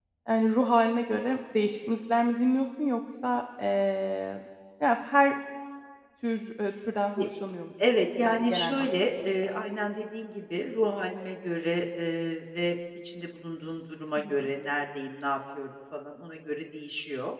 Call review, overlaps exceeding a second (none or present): present